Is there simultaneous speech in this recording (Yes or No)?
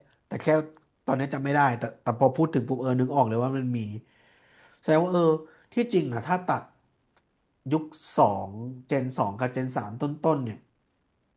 No